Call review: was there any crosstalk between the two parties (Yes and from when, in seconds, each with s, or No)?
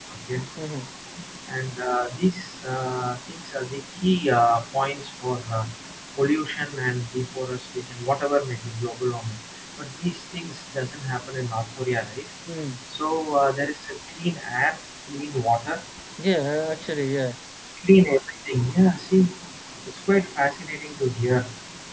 No